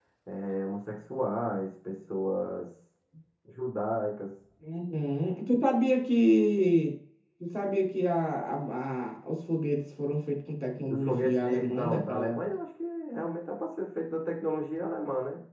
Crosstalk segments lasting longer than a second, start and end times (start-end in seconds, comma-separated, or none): 10.9-12.3